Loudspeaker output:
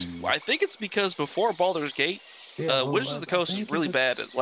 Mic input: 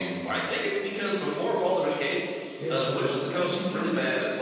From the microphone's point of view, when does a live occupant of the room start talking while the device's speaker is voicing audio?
none

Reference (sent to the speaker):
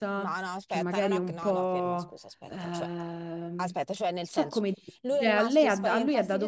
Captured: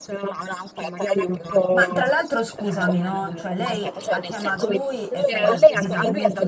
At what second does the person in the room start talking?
2 s

